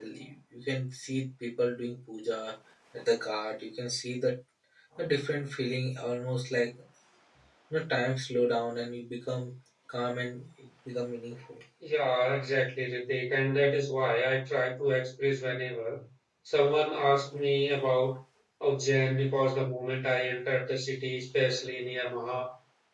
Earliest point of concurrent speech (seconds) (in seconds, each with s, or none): none